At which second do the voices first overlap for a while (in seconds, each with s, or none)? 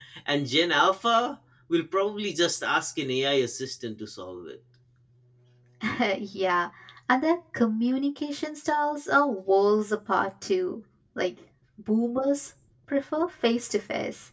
none